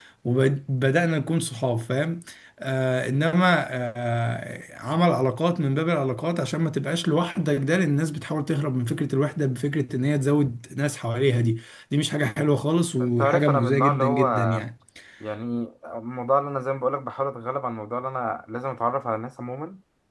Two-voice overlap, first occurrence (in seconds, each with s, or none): 13.0 s